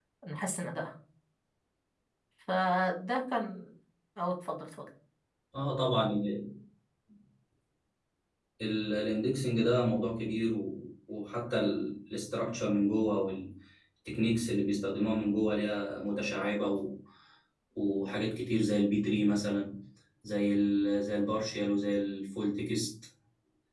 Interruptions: none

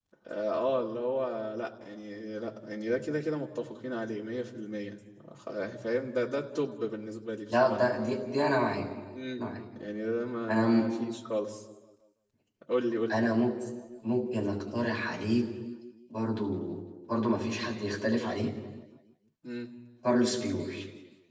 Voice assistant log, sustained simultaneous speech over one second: none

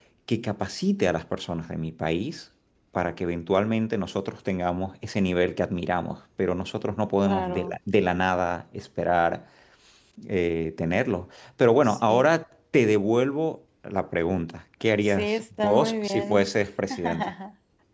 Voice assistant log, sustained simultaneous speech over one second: present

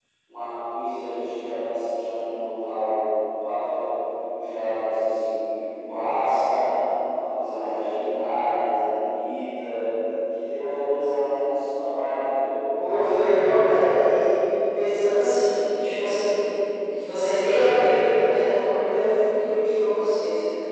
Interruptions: none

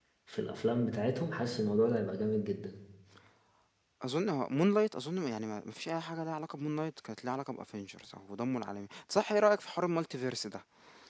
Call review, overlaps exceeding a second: none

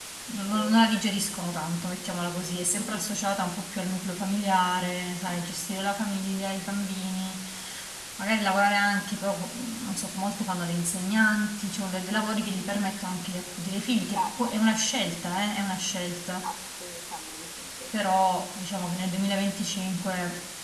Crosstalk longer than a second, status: none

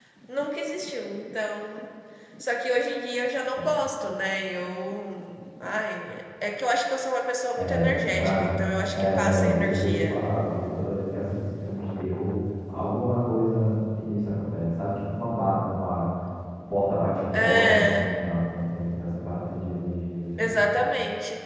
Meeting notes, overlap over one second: present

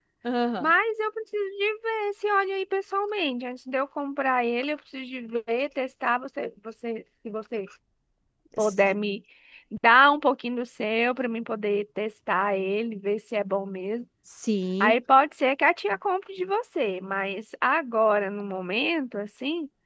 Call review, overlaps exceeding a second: none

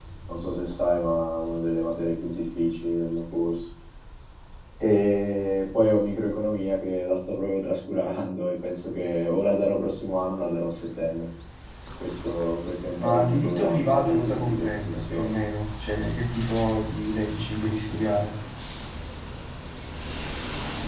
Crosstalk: present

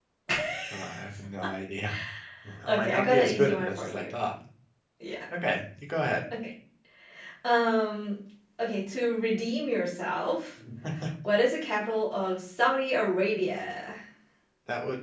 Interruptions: present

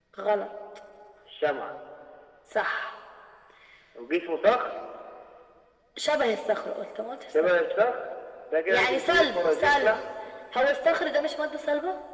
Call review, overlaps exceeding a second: present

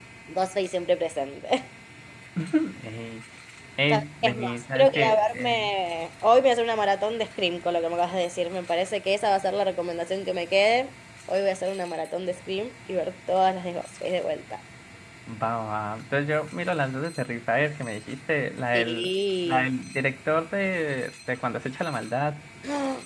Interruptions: present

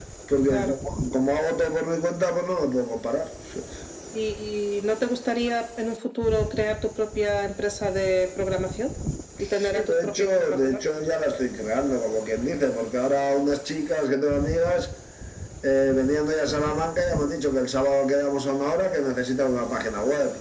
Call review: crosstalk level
present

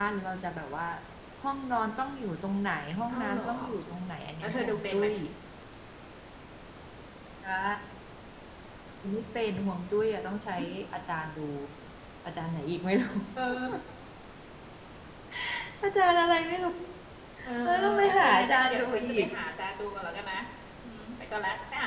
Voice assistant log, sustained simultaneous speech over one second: present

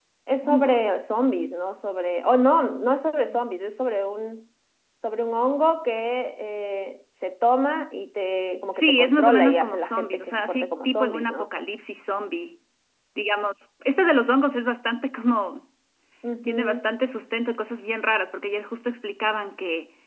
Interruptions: present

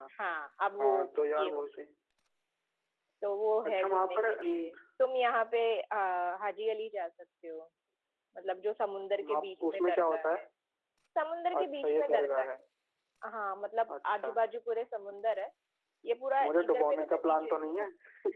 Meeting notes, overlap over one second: present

